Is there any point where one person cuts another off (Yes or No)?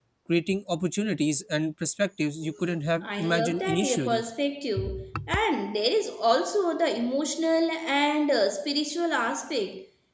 Yes